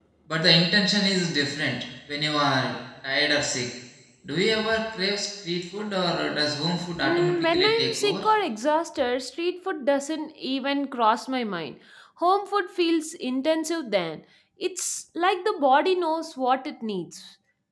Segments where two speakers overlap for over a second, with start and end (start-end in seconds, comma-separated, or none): 7.0-8.2